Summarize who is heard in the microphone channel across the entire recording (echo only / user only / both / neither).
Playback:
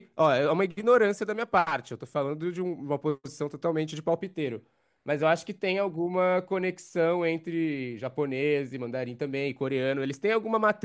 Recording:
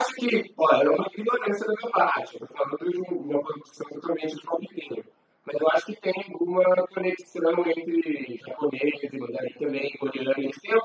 echo only